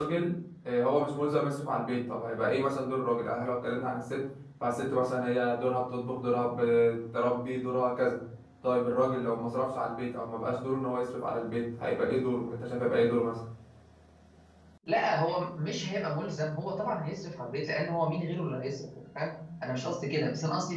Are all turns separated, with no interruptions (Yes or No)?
Yes